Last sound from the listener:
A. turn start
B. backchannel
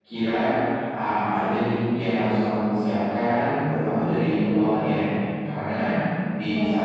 B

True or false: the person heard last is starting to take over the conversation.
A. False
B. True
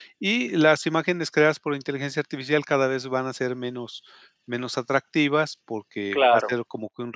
A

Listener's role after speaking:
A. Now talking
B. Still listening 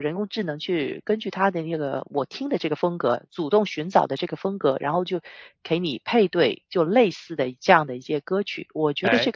A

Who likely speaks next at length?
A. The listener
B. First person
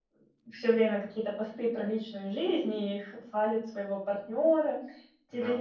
B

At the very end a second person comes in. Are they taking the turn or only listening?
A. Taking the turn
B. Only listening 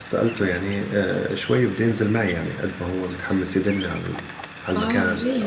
A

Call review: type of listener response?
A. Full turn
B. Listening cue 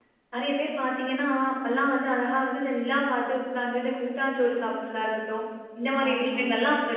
B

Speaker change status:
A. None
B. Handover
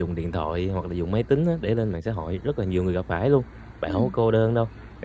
A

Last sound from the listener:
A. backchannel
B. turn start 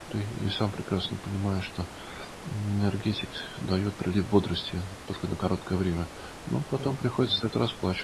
A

